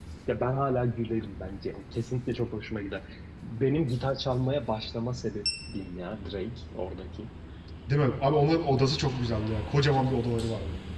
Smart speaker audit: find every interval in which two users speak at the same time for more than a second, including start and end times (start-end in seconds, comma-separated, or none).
none